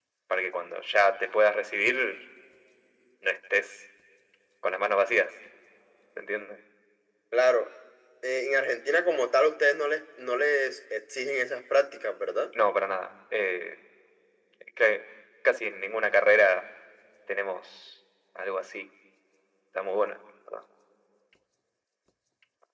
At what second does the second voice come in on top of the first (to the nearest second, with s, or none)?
none